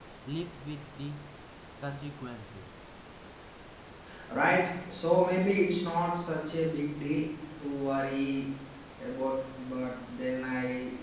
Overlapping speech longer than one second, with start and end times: none

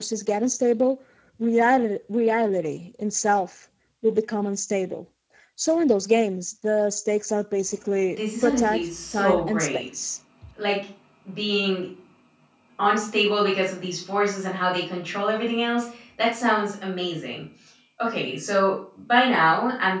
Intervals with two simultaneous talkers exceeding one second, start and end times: 8.1-9.8

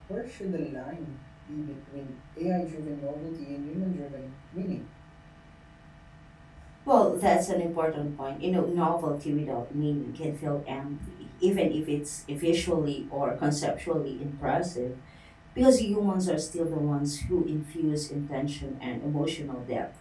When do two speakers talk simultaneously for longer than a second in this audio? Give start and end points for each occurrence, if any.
none

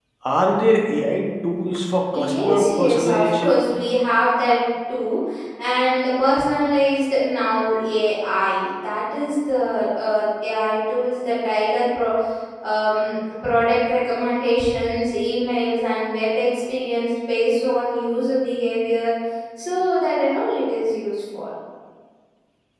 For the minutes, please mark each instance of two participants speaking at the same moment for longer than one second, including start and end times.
2.1-3.6

